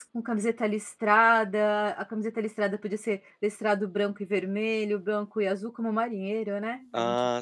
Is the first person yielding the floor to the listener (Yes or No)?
Yes